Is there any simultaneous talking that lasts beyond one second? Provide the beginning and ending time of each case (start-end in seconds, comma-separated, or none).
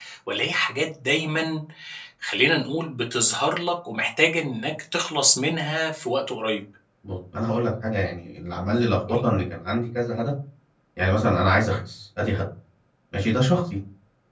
none